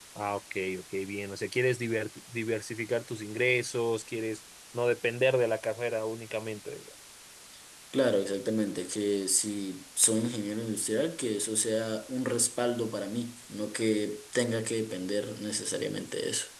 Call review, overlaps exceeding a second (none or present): none